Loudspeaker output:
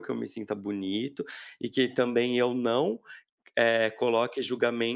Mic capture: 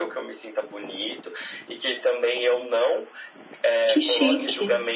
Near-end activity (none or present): present